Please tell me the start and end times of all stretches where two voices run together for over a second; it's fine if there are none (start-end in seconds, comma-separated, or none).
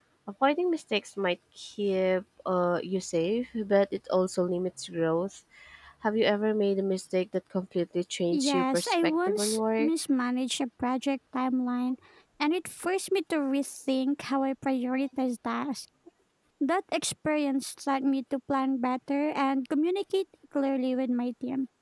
8.3-9.9